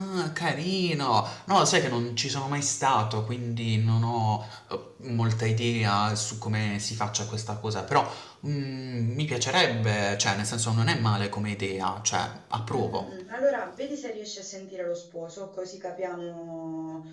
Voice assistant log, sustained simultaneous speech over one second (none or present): none